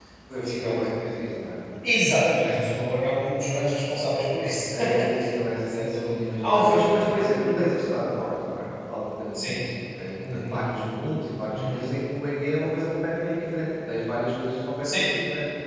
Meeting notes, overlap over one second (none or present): present